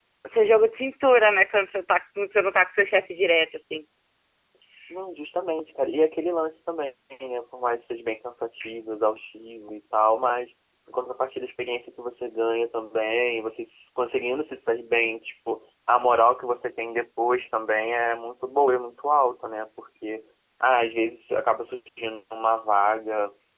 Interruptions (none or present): none